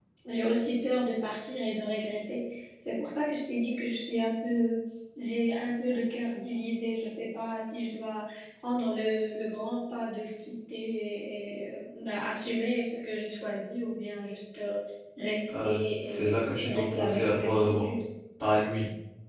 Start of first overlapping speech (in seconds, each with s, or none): 15.6 s